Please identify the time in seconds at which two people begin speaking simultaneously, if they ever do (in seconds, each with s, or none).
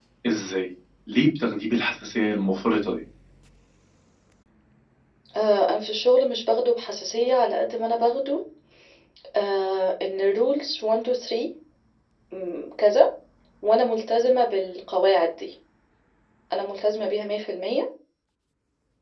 none